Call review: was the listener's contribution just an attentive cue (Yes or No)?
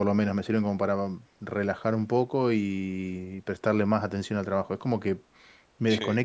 Yes